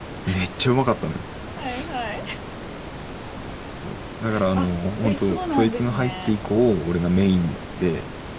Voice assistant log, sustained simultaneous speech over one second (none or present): present